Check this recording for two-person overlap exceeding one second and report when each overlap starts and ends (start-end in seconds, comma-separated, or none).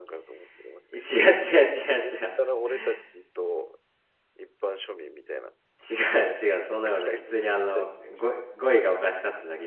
6.9-8.2